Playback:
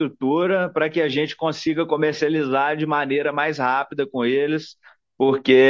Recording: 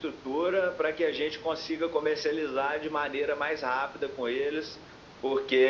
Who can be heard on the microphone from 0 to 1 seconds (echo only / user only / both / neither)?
echo only